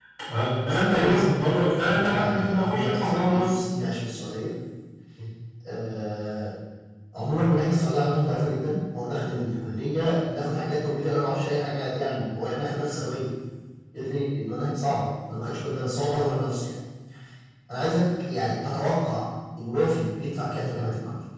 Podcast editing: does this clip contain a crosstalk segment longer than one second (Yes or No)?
Yes